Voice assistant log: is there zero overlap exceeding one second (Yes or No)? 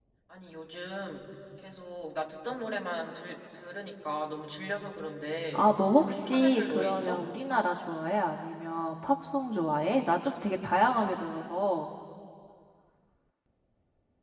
No